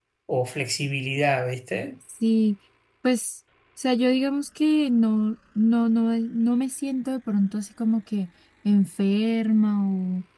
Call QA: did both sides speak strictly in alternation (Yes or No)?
Yes